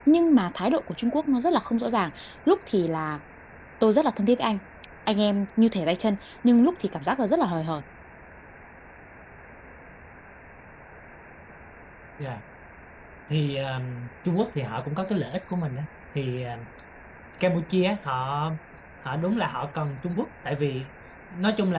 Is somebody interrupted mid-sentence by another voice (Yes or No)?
No